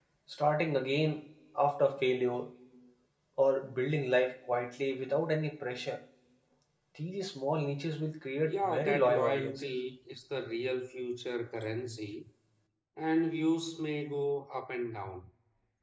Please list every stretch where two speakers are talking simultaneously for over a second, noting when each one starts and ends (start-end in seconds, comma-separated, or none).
8.4-9.7